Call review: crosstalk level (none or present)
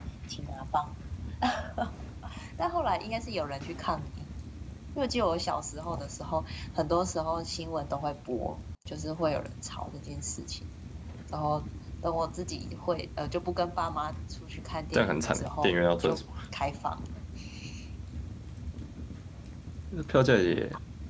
present